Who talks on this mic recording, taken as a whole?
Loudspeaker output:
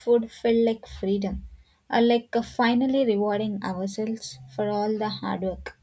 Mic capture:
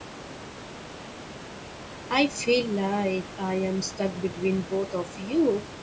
user only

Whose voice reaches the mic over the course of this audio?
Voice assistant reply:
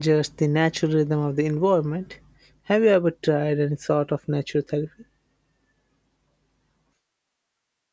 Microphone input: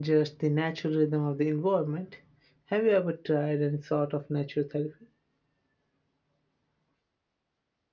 echo only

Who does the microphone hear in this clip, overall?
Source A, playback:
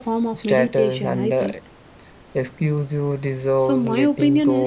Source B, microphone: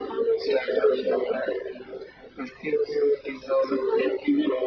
echo only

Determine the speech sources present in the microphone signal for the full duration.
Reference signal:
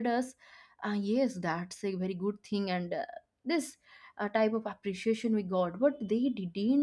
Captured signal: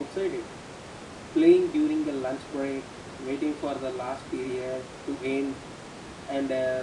user only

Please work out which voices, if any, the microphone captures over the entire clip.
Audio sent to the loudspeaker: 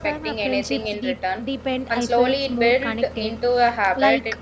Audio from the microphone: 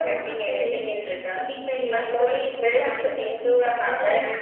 both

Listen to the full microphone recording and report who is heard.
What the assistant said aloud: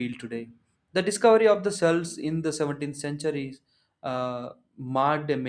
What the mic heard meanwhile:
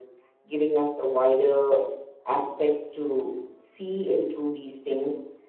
user only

